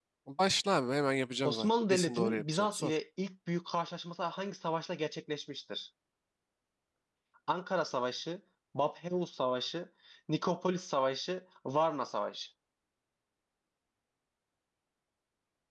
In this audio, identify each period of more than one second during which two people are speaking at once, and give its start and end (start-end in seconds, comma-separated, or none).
1.4-3.0